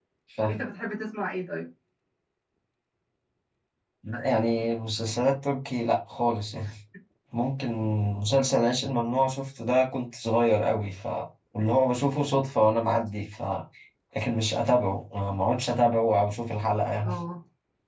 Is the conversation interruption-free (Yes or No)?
Yes